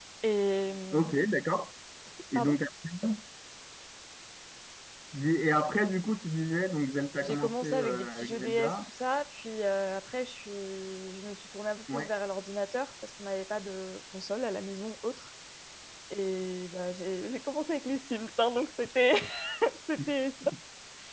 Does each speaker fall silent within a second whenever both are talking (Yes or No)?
No